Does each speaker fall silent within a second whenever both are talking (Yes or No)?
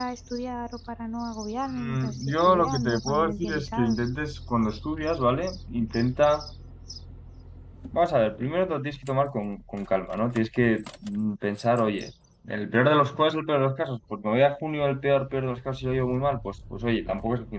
No